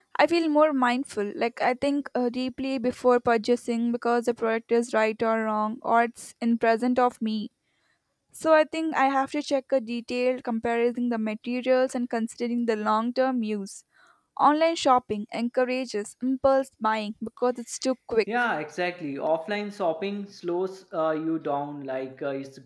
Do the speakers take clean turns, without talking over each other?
Yes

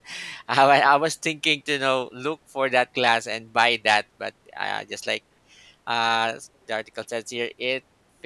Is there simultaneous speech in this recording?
No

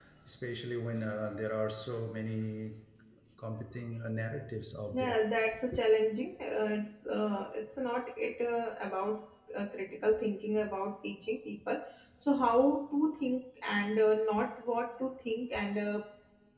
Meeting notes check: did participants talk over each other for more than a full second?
No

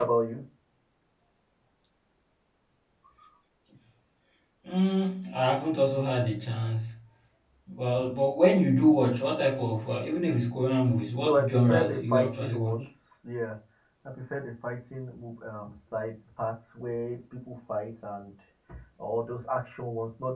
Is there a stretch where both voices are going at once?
Yes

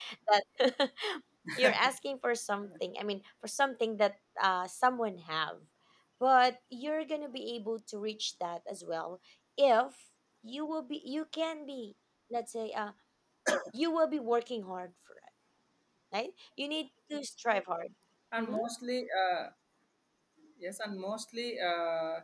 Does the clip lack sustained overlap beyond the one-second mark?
Yes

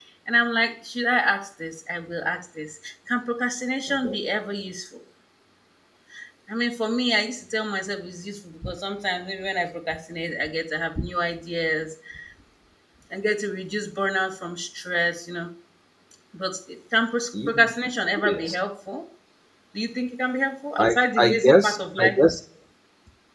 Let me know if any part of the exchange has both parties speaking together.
Yes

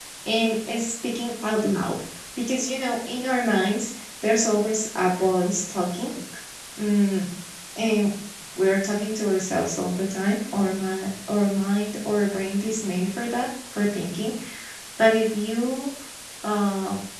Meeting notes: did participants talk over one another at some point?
No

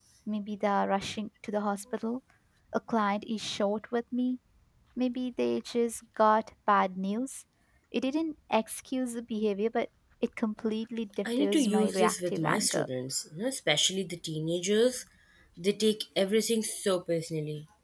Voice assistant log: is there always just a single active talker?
No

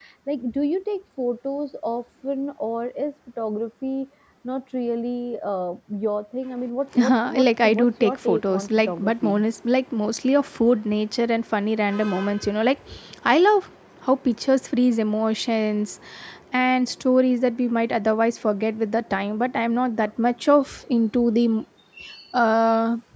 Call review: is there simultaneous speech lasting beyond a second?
Yes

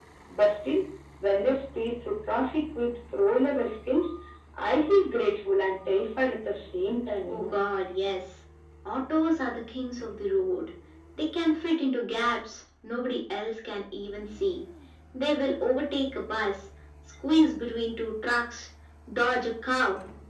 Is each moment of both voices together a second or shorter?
Yes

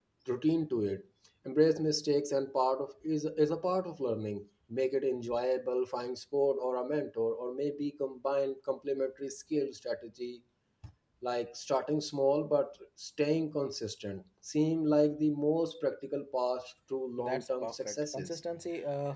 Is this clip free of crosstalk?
No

